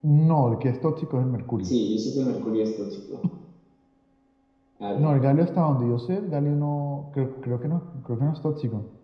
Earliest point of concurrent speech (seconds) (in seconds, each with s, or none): none